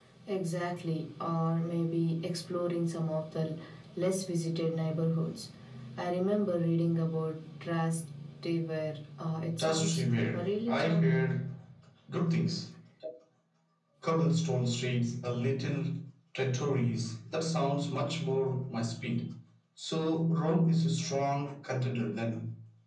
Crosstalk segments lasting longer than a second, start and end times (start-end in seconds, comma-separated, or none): 9.6-11.2